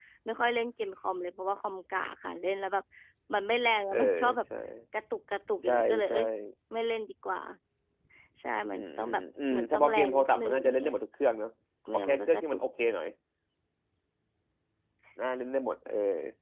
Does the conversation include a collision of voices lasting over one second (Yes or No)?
Yes